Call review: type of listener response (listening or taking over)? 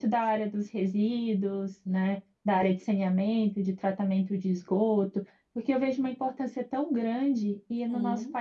listening